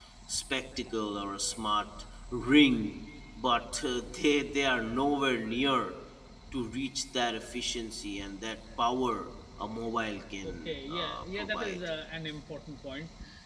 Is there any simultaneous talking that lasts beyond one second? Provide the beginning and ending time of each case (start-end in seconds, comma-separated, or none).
10.4-11.8